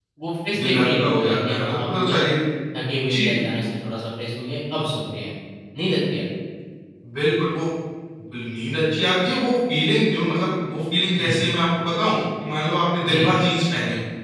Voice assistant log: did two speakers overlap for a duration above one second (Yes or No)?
Yes